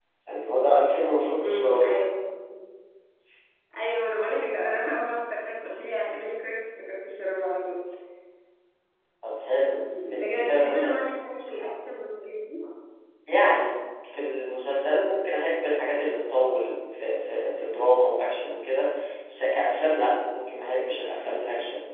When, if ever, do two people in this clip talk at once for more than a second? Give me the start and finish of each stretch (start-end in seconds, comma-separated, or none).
10.1-11.6